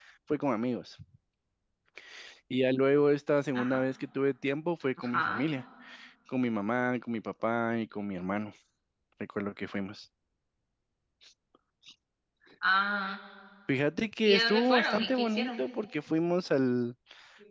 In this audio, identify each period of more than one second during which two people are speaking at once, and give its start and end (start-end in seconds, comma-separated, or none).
14.2-15.6